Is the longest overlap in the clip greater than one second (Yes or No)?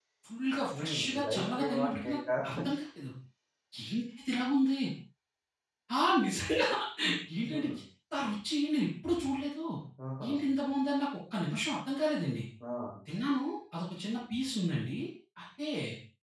Yes